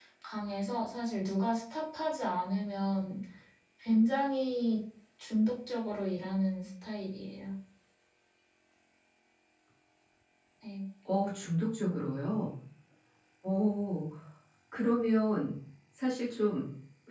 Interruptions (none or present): none